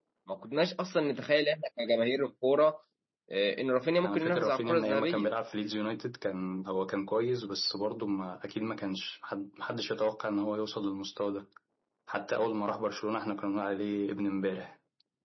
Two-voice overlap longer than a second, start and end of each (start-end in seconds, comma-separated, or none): 4.0-5.3